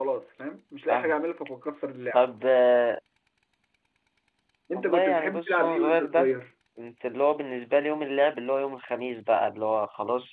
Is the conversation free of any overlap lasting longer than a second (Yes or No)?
No